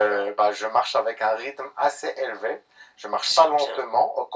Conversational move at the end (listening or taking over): listening